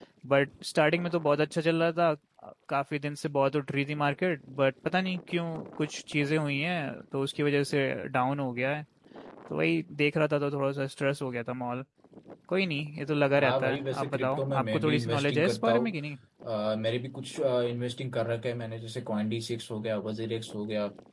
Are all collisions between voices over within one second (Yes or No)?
No